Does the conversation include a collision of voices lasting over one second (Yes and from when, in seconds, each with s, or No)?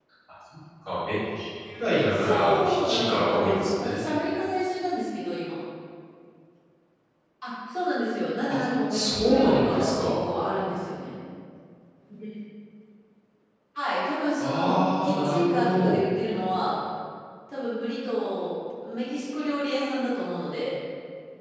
Yes, from 2.1 s